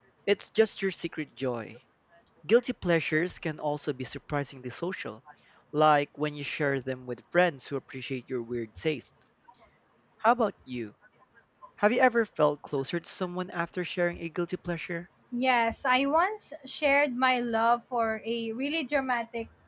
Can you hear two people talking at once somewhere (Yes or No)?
No